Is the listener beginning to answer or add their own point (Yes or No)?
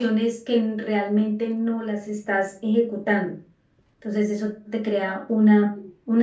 No